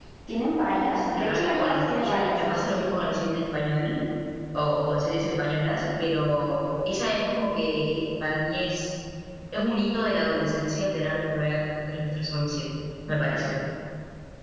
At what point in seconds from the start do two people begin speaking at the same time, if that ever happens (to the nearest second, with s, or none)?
1 s